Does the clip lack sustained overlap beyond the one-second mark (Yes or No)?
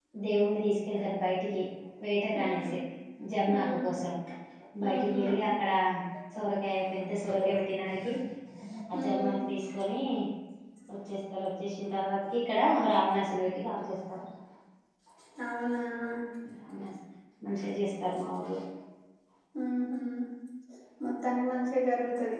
Yes